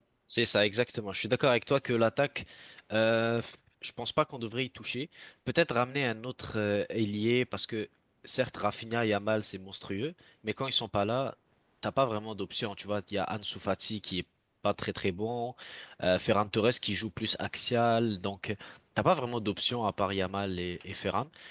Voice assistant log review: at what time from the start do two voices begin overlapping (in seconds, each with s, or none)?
none